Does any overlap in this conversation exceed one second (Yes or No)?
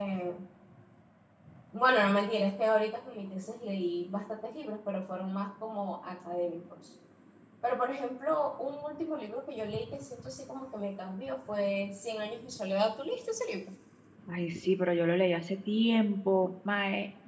No